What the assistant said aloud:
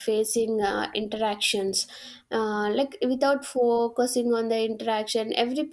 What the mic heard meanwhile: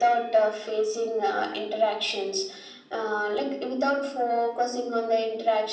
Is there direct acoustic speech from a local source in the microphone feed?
No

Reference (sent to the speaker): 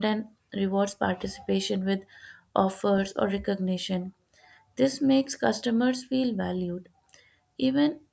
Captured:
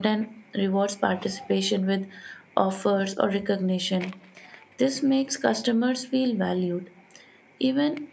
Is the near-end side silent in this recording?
Yes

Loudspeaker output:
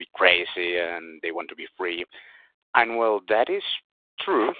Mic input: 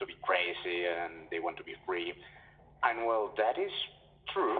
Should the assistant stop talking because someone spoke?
No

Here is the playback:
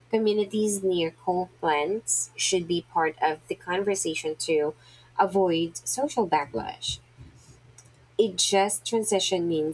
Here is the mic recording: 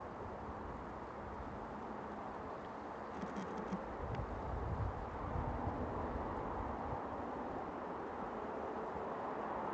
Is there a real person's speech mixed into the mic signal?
No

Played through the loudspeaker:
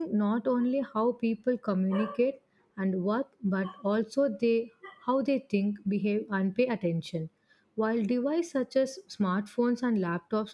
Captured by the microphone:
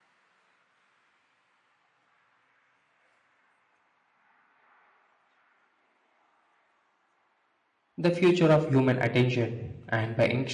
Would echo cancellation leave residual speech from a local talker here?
Yes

